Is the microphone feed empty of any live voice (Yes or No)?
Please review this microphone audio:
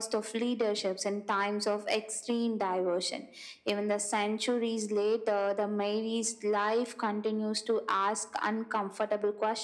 Yes